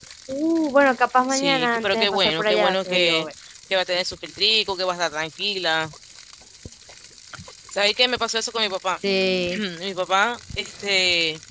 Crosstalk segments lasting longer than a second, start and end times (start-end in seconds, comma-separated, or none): 1.3-3.3